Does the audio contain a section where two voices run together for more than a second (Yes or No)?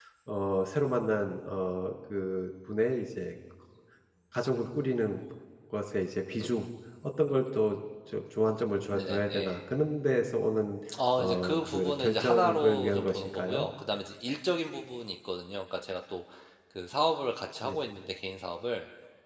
Yes